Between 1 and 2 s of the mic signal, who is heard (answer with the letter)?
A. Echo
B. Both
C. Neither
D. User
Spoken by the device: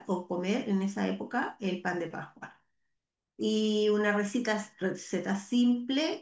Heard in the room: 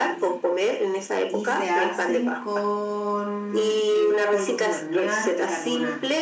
B